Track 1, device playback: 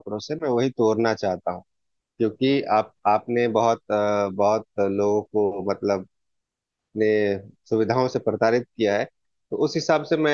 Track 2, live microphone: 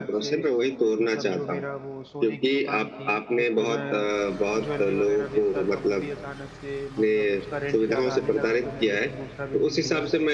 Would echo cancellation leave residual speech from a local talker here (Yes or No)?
Yes